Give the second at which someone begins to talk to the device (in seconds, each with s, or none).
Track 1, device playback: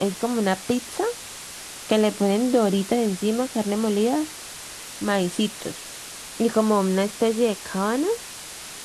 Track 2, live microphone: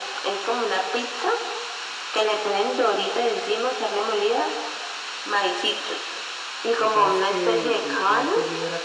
6.8 s